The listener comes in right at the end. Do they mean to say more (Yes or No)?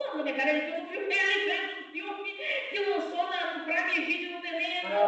Yes